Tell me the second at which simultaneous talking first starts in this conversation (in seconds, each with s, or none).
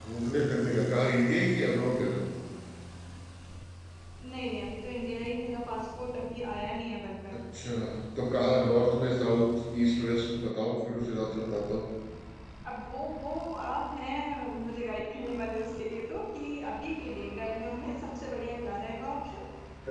none